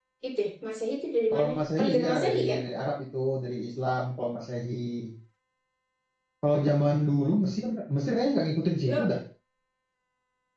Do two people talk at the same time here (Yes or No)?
Yes